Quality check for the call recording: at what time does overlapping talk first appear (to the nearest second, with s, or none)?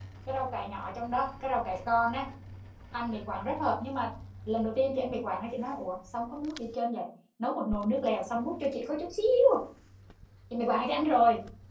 none